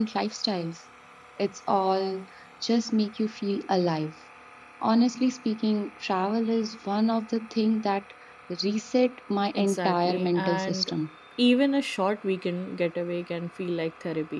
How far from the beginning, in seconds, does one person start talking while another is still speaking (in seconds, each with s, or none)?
9.5 s